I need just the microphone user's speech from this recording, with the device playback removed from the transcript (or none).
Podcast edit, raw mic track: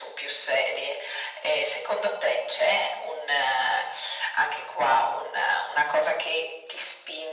none